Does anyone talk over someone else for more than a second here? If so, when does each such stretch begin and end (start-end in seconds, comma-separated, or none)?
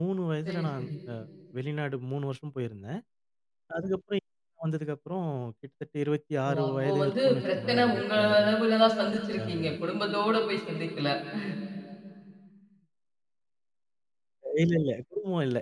6.5-8.5